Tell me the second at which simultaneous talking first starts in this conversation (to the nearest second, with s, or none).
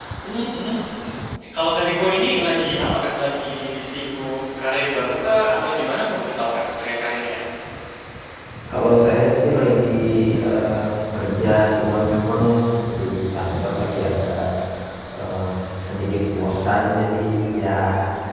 none